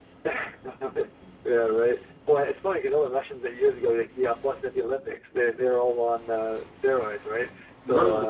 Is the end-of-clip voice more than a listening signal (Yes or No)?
No